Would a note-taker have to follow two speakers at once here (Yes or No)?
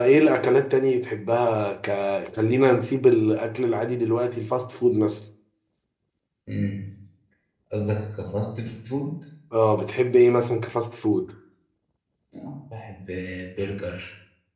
No